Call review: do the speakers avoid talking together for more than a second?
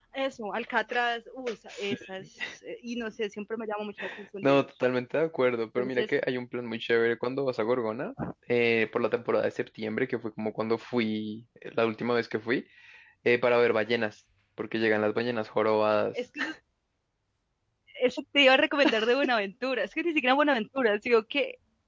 Yes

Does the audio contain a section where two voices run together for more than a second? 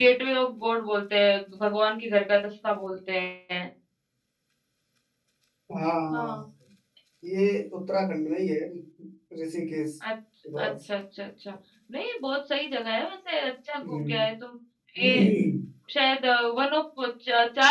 No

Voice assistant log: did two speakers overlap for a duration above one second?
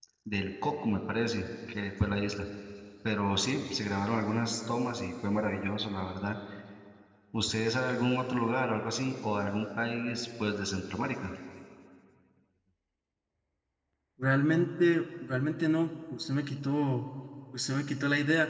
No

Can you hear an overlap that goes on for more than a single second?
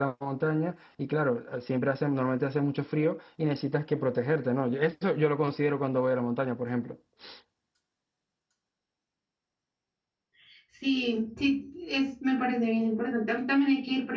No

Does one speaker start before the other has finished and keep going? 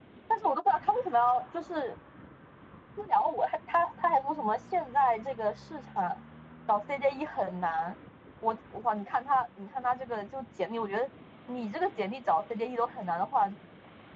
No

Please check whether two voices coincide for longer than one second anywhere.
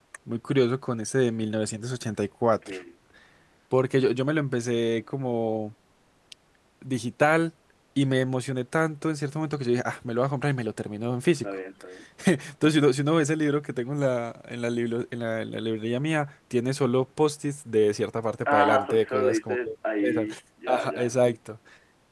Yes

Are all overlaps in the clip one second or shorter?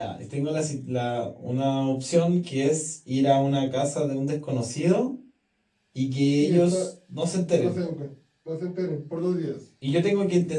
Yes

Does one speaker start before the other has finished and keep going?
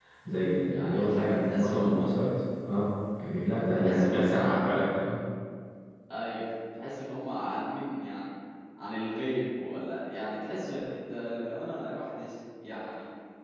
Yes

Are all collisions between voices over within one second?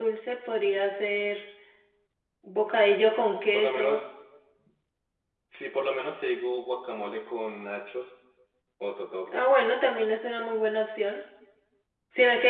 Yes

